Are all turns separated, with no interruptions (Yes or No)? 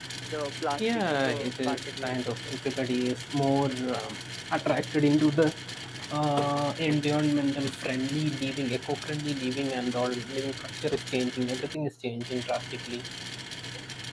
No